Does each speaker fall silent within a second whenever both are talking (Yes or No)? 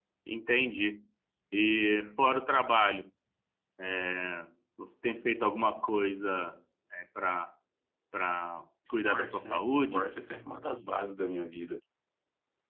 No